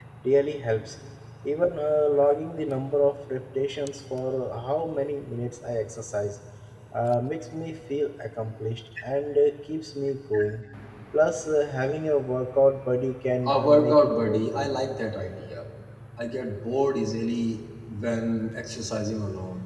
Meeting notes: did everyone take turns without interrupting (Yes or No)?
No